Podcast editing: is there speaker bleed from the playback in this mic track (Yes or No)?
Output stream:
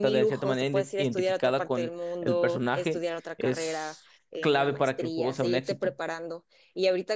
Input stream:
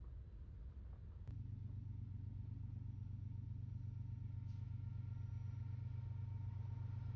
No